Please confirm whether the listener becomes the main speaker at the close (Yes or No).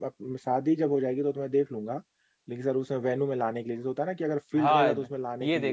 Yes